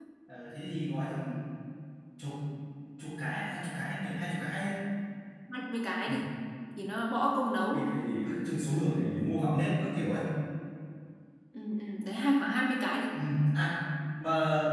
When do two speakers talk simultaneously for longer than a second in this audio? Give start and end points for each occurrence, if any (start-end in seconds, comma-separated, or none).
none